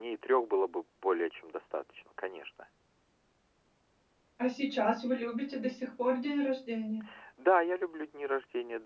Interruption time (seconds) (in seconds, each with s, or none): none